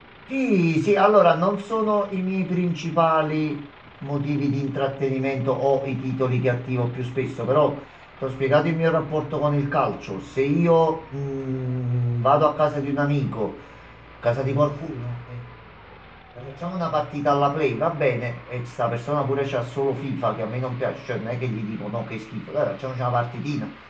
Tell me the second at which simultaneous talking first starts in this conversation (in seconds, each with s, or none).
none